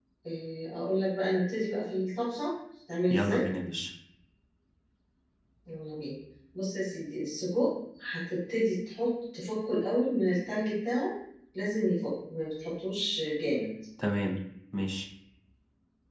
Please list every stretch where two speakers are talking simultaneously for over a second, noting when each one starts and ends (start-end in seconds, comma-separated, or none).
none